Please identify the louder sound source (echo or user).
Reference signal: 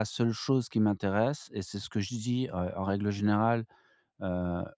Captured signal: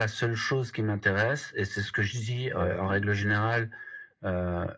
echo